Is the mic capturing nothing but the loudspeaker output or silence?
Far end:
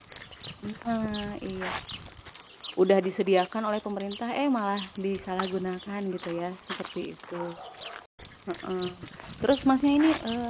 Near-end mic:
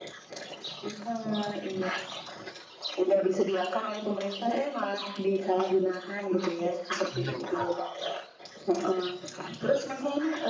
No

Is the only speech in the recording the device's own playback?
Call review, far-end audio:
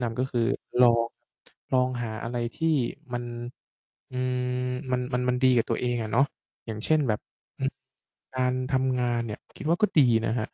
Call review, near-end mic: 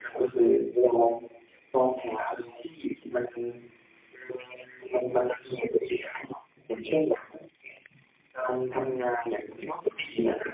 Yes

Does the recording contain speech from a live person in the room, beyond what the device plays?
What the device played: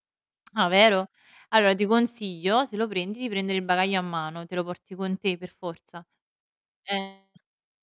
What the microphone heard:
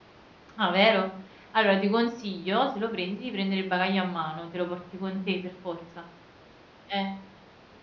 No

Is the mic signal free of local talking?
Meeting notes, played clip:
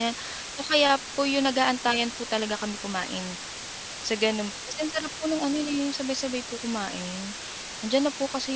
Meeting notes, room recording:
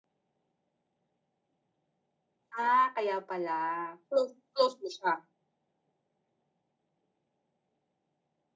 No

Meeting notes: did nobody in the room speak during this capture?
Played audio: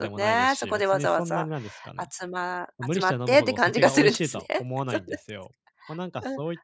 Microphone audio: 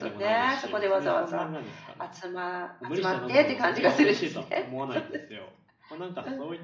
Yes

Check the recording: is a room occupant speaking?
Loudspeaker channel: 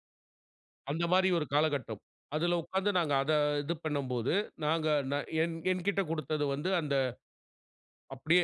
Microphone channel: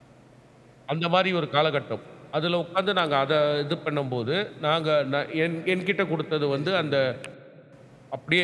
Yes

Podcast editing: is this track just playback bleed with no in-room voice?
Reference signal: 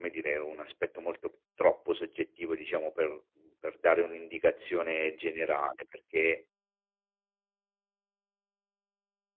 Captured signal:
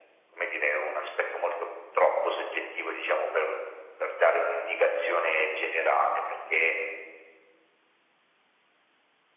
Yes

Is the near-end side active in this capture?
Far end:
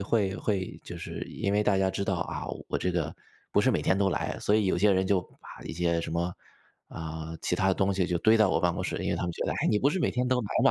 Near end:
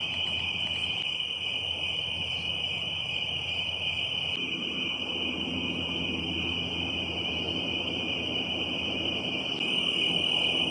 No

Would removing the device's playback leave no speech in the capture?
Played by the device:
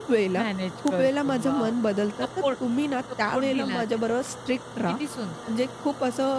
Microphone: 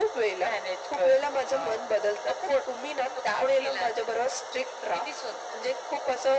Yes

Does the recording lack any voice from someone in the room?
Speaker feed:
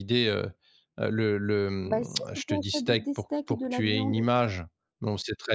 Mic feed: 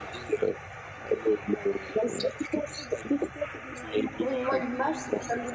No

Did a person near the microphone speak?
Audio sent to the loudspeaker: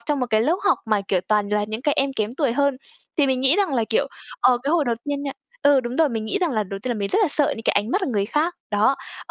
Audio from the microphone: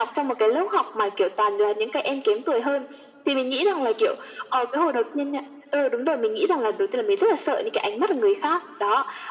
No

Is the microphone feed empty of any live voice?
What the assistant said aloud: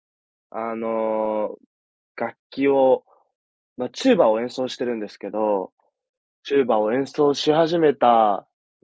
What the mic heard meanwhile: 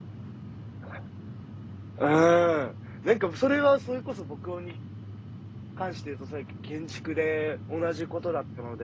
No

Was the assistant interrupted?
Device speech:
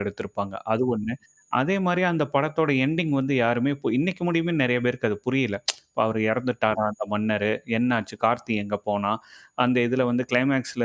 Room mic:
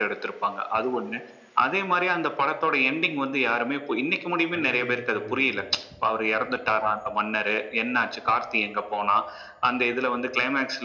Yes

